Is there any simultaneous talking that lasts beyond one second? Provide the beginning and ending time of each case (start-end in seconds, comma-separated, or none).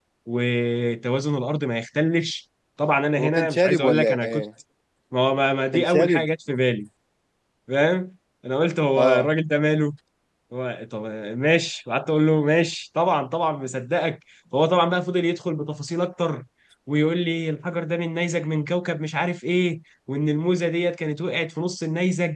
3.2-4.4